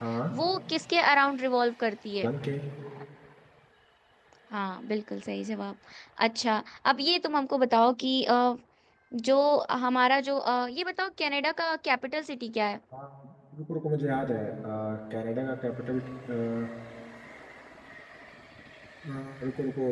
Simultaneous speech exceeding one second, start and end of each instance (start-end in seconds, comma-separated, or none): none